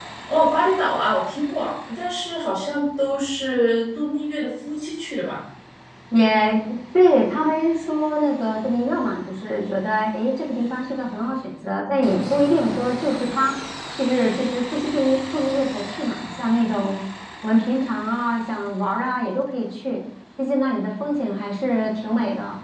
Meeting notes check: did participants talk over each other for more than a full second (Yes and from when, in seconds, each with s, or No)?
No